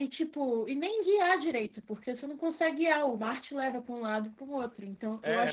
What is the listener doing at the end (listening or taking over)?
taking over